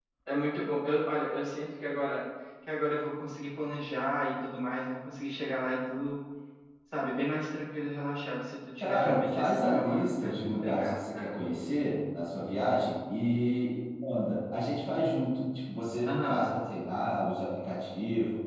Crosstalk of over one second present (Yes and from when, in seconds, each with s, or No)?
Yes, from 8.8 s